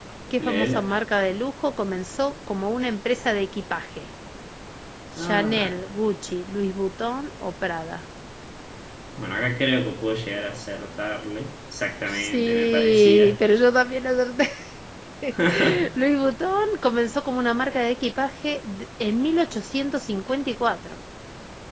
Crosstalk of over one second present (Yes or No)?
Yes